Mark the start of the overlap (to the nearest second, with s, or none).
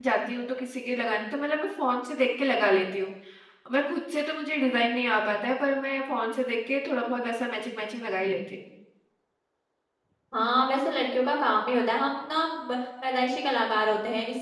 none